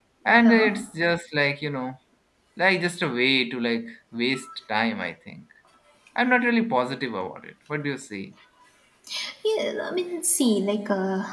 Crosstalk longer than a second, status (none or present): none